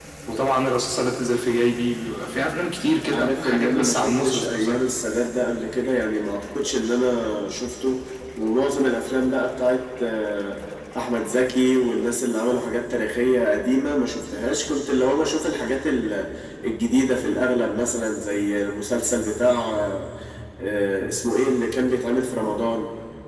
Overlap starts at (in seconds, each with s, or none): 3.1 s